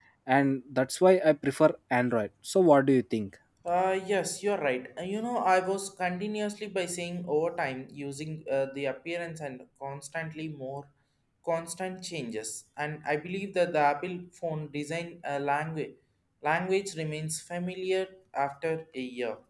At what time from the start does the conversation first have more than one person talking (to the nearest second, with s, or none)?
none